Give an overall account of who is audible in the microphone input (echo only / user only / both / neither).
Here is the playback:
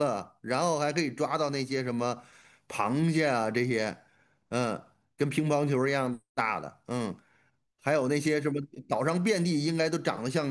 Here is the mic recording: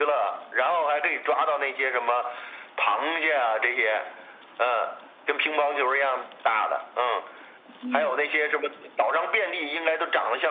both